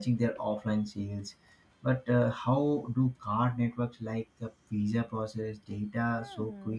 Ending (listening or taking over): taking over